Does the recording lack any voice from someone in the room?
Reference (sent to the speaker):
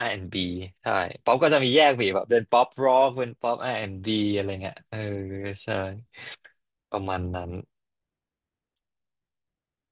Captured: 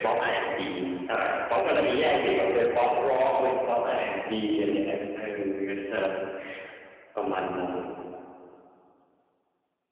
Yes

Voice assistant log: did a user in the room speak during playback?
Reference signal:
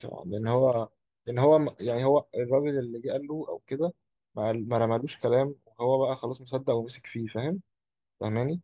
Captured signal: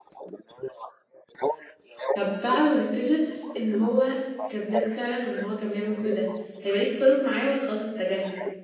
Yes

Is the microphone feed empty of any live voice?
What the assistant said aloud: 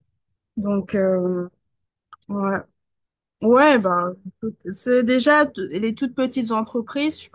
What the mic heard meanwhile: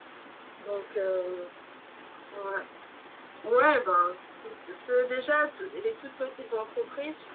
Yes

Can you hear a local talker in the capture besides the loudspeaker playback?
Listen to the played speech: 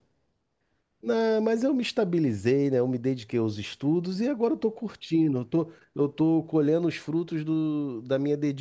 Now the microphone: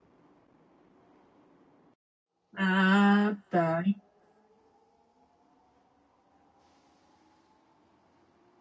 Yes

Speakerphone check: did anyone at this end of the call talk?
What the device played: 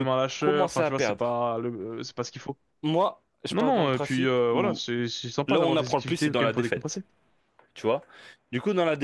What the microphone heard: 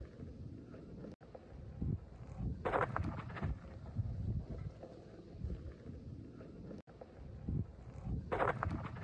No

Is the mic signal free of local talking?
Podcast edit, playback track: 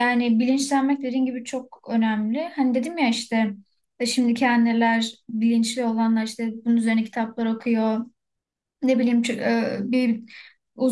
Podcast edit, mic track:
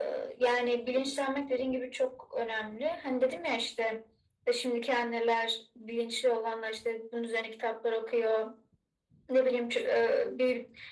Yes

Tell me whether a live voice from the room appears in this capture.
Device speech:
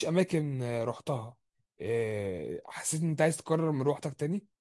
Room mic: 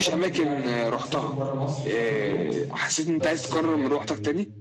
Yes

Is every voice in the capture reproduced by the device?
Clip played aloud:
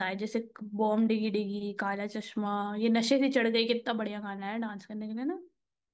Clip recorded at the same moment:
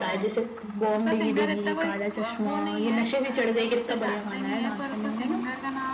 No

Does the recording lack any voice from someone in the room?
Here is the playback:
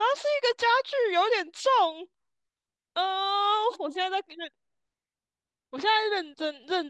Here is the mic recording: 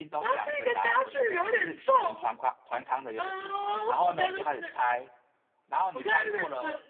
No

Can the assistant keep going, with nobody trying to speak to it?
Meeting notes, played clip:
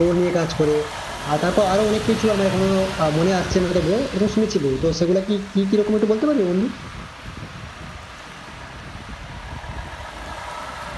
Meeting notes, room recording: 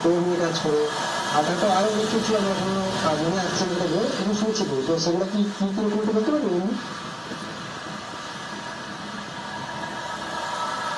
Yes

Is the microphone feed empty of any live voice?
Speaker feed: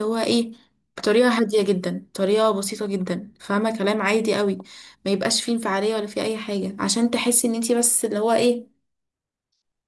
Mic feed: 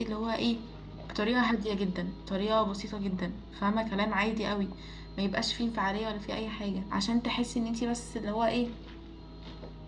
Yes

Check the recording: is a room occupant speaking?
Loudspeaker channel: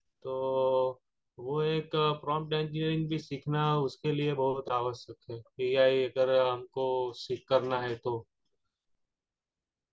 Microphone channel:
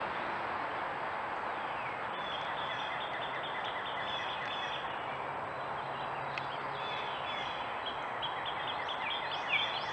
No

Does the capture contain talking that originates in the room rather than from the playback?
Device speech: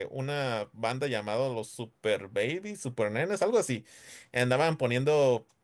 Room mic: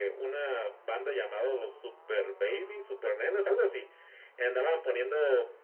No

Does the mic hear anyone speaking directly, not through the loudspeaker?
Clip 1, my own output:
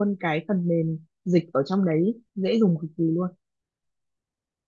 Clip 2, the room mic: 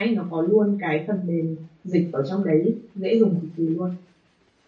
No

